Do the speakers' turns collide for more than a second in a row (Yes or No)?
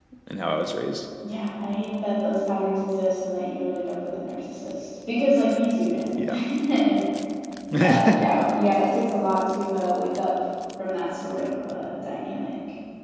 No